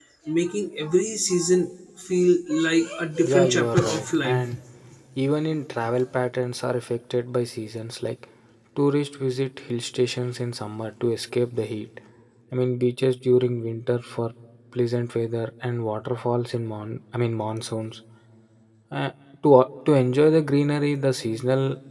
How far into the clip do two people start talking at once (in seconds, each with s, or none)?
3.2 s